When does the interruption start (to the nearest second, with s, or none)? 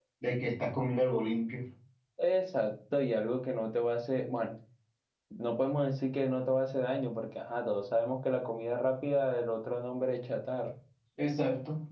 none